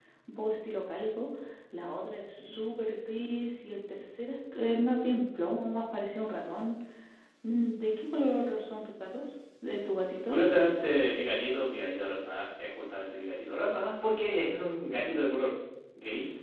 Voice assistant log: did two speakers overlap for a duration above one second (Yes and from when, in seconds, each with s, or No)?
No